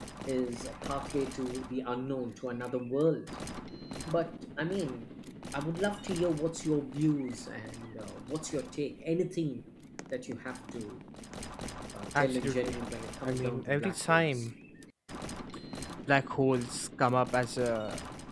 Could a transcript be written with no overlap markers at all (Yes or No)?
No